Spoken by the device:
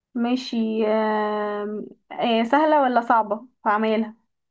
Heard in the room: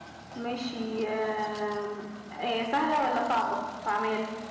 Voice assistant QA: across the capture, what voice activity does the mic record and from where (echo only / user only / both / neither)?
echo only